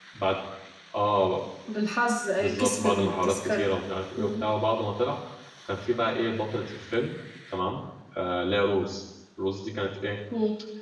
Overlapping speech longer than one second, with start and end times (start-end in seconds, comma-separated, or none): 2.4-3.7